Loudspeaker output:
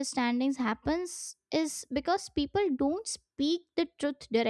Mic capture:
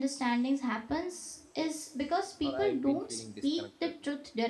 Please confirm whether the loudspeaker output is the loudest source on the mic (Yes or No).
Yes